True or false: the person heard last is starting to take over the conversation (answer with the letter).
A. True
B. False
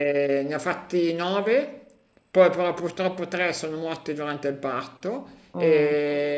B